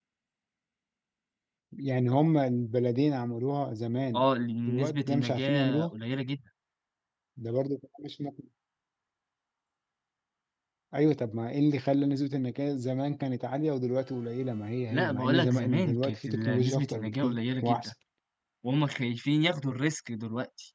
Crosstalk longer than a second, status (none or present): present